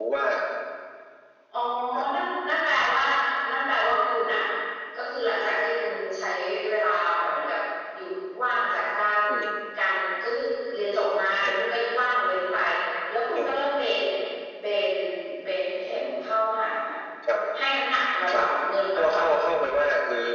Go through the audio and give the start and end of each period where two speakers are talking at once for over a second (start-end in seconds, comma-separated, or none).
none